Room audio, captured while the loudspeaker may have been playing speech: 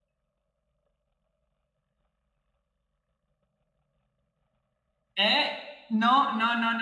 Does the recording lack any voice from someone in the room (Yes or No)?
No